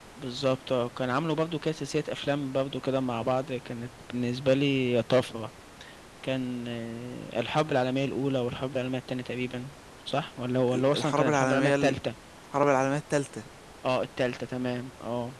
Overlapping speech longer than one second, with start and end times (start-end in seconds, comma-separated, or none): 10.7-11.9